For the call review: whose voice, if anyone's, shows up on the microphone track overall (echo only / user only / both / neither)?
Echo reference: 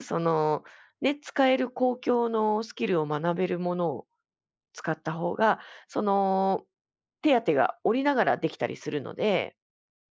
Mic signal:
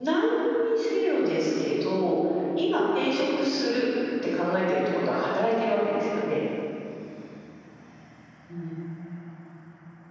user only